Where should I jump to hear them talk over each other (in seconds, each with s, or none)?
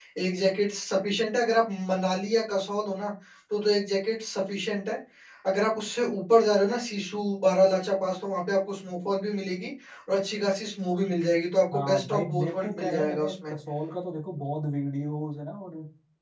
11.7 s